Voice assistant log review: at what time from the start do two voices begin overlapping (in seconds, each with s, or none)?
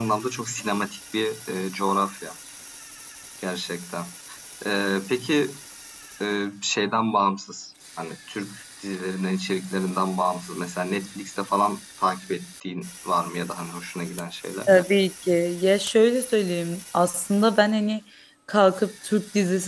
none